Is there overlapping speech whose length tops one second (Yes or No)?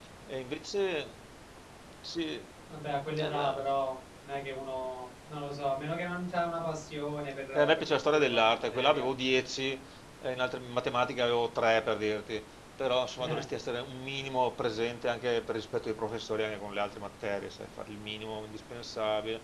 Yes